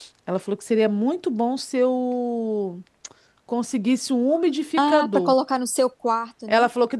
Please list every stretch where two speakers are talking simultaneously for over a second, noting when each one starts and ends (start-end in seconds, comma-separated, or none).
none